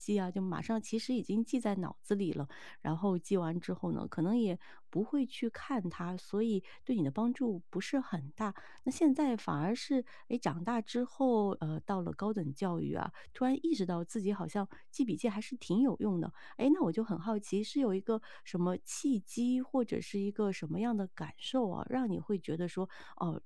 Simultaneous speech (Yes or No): No